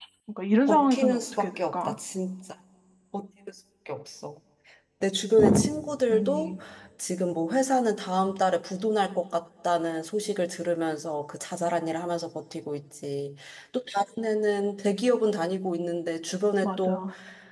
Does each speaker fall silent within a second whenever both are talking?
No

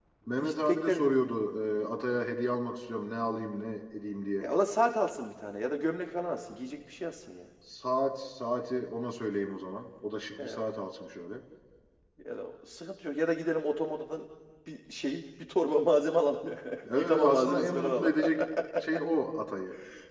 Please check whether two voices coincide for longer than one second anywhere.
Yes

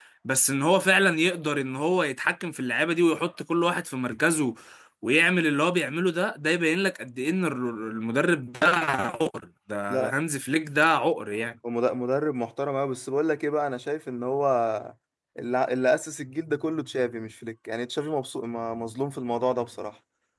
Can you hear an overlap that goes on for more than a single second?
No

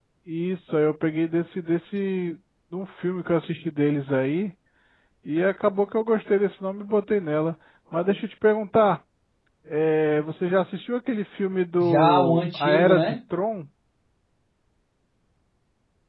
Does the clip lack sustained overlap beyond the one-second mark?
No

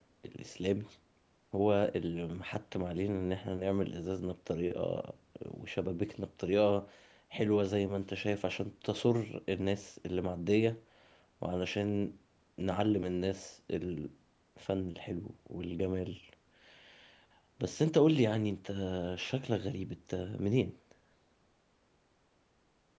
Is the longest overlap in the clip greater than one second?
No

